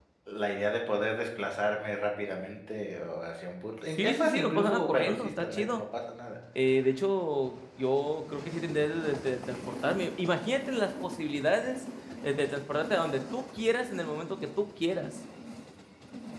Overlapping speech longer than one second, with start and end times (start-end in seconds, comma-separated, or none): 3.9-5.8